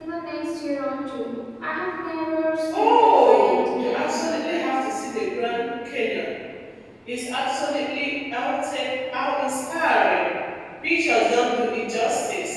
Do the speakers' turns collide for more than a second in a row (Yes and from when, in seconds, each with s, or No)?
Yes, from 2.7 s